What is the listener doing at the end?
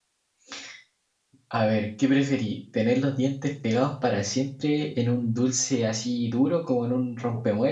listening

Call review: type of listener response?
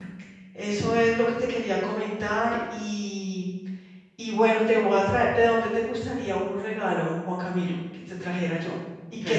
taking over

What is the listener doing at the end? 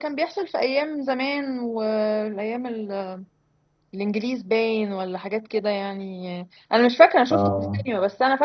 listening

